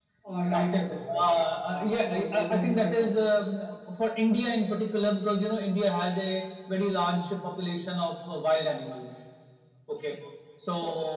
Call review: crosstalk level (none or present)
present